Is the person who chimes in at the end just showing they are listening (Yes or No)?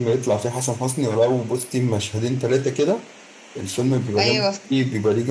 Yes